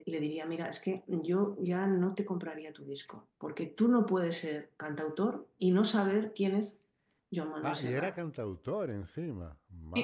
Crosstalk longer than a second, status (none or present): none